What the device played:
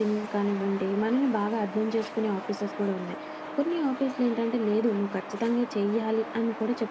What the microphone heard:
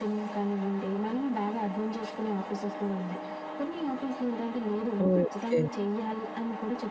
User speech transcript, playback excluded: ఓకే.

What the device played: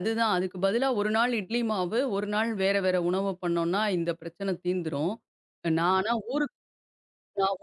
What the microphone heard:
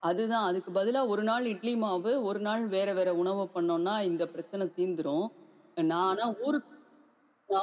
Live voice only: none

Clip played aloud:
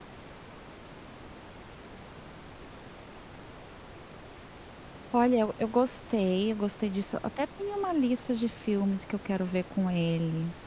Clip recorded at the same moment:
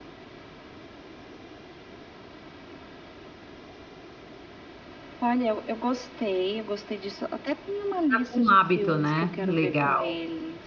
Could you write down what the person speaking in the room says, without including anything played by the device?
já com um hábito, né, legal.

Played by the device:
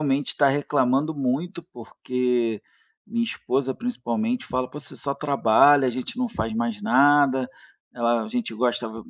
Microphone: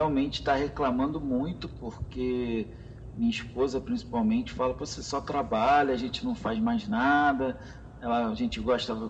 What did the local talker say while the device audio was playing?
none

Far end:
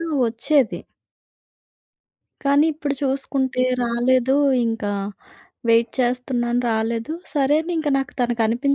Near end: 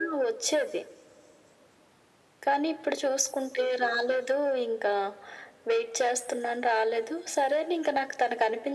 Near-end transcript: none

